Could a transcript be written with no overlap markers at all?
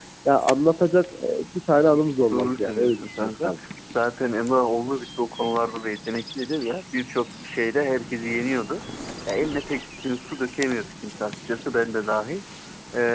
No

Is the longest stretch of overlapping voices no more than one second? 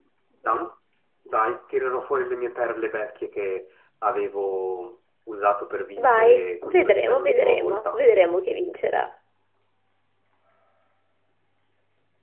No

